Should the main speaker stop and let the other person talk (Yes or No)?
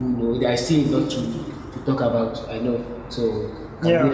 Yes